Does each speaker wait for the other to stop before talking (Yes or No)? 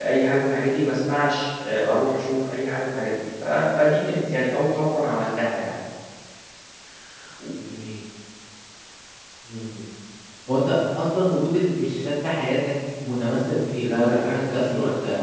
No